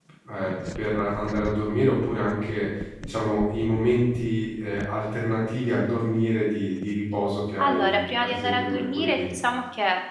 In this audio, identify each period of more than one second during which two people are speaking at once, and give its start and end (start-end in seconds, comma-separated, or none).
7.6-9.3